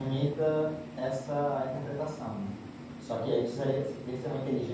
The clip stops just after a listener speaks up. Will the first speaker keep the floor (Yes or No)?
Yes